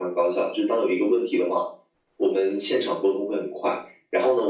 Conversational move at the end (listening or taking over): listening